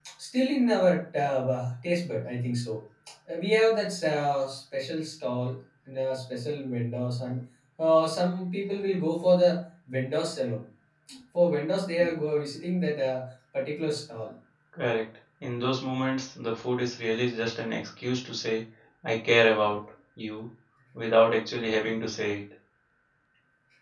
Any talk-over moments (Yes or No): No